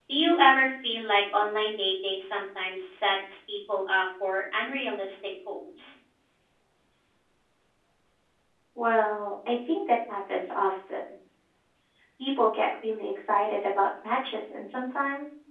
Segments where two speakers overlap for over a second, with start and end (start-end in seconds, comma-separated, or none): none